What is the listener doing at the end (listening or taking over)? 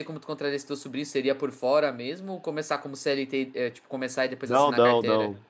taking over